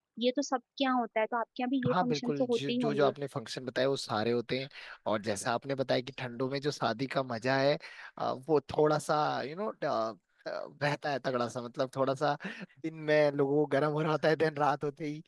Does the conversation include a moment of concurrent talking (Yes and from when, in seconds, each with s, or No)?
Yes, from 1.8 s